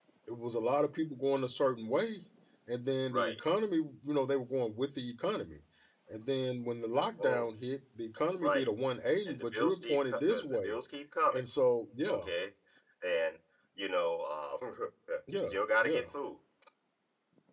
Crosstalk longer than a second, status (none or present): present